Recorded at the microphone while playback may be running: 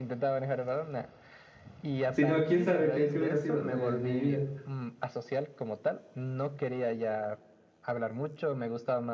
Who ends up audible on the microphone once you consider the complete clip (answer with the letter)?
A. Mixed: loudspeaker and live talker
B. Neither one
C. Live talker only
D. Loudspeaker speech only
A